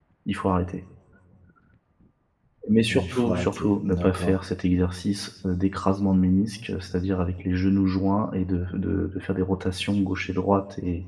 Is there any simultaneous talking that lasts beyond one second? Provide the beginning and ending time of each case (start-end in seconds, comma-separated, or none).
2.9-4.4